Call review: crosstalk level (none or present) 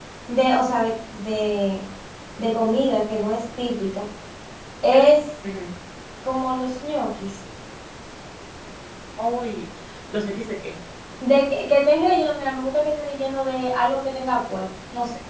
none